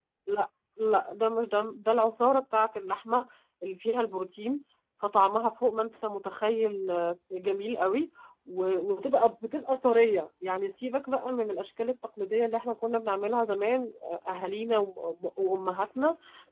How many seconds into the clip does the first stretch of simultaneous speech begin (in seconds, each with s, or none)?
none